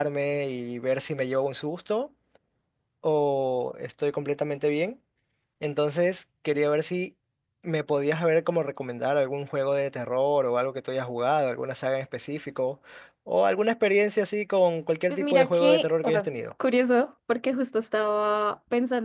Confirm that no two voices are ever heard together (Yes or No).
No